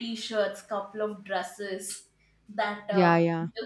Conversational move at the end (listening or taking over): taking over